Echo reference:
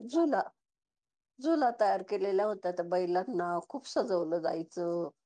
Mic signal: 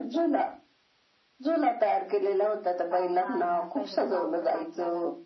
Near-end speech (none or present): present